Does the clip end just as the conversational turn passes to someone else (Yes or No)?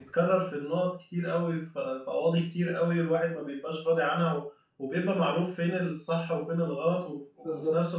No